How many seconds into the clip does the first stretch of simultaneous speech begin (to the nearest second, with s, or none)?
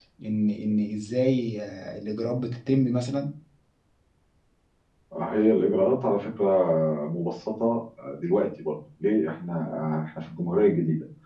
none